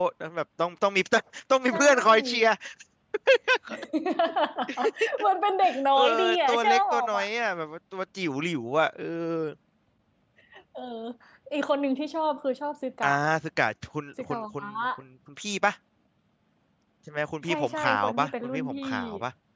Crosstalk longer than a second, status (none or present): present